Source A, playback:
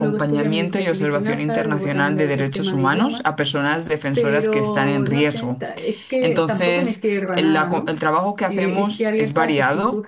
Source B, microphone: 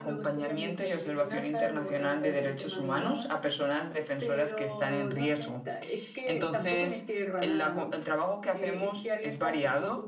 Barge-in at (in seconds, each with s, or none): none